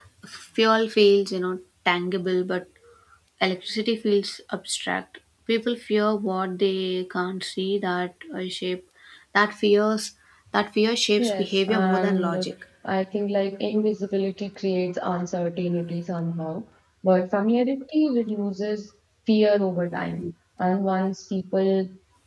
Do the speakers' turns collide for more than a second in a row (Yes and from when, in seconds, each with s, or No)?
Yes, from 11.2 s